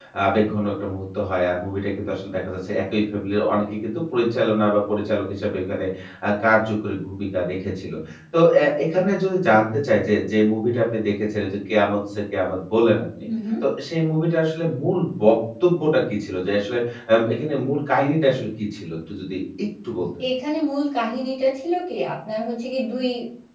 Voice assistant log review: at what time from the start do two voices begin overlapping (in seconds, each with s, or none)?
none